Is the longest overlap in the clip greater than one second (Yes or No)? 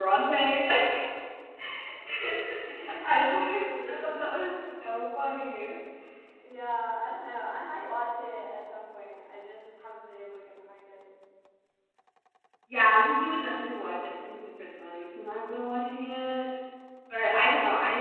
Yes